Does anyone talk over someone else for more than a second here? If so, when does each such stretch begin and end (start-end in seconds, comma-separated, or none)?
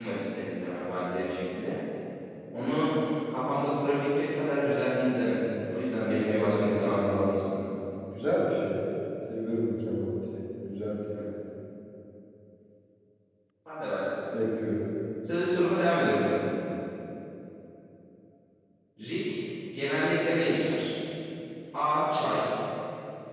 6.1-7.6